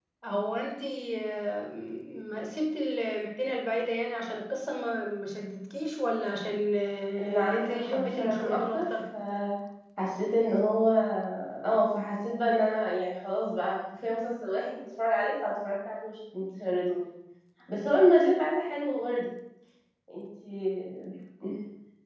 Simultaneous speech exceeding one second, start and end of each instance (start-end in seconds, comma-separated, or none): 7.2-8.8